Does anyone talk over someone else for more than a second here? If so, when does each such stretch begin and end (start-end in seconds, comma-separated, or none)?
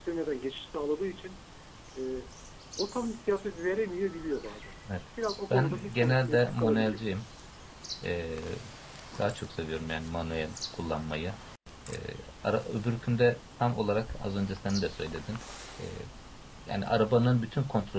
5.5-7.0